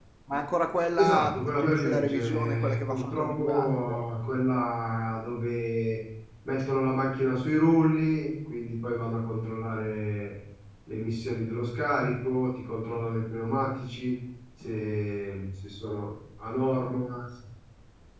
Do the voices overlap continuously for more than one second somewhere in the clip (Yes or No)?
Yes